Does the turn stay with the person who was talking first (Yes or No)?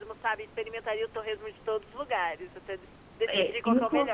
No